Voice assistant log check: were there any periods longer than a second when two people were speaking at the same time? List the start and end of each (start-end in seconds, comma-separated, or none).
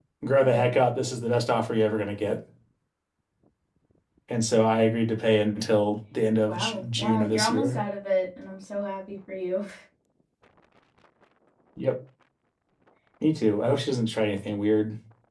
6.5-7.8